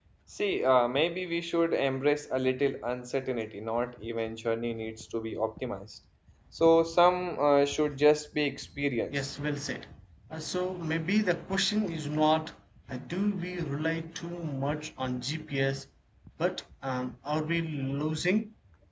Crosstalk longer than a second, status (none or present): none